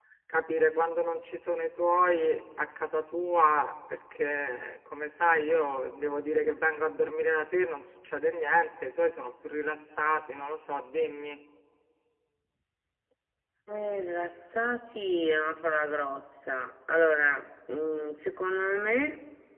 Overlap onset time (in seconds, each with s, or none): none